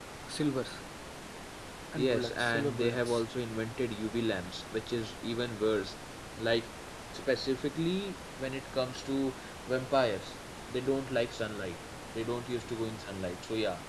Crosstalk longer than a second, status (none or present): present